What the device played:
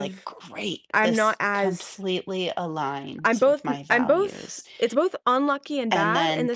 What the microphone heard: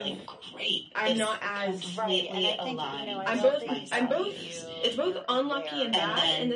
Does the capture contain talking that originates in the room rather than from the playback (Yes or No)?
Yes